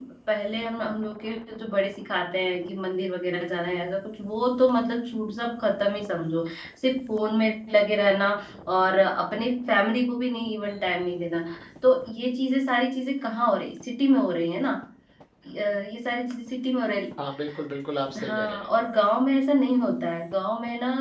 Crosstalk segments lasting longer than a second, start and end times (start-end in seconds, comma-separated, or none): none